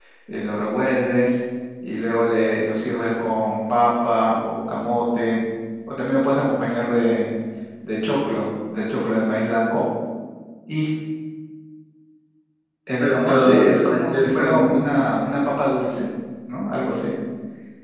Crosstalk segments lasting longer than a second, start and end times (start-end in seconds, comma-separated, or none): 13.0-14.8